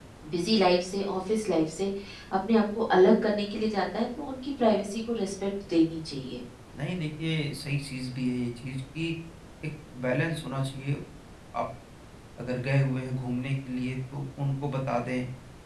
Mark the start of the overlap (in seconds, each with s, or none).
none